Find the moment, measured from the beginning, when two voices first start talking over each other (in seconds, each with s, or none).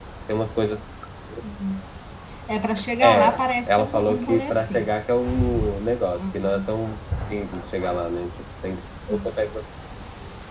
3.0 s